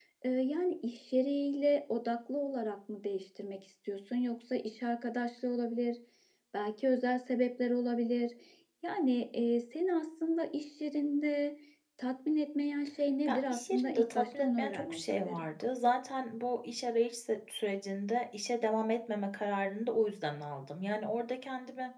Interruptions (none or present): present